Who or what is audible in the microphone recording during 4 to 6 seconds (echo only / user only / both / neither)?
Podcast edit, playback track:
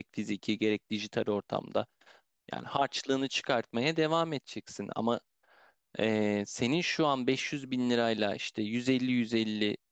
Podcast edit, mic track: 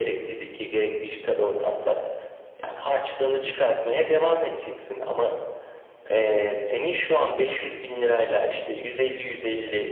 echo only